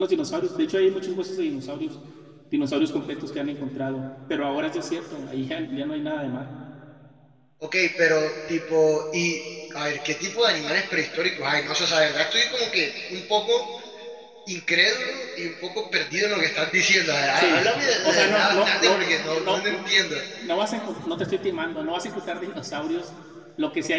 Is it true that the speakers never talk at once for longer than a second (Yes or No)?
No